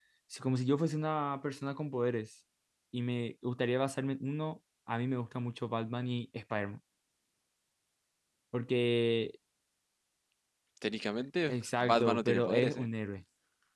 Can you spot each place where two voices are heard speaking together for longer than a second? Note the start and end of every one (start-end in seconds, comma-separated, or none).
11.5-12.8